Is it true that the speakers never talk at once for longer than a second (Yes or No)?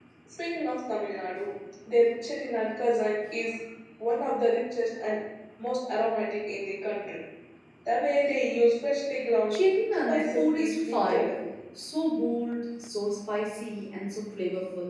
No